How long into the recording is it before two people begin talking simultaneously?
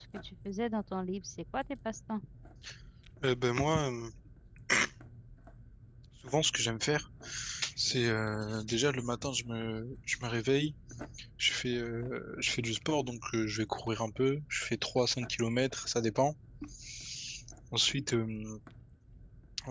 none

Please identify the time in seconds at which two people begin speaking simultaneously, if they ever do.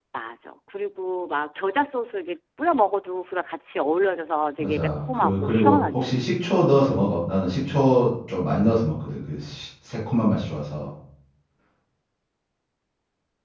4.6 s

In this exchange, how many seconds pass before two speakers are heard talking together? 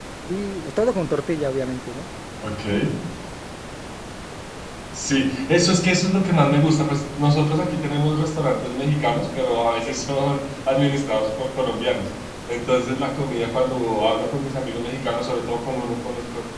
none

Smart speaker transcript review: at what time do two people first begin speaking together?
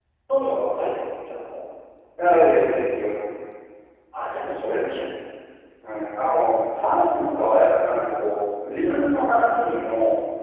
none

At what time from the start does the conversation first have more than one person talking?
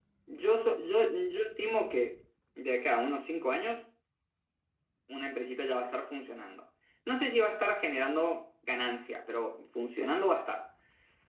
none

